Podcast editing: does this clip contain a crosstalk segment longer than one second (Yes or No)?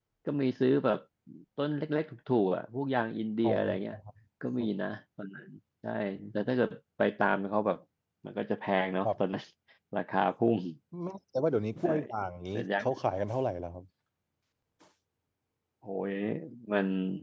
No